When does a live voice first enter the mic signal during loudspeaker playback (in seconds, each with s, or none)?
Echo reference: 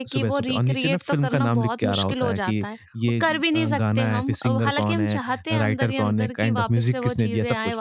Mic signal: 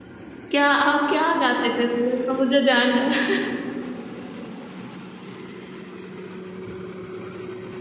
0.5 s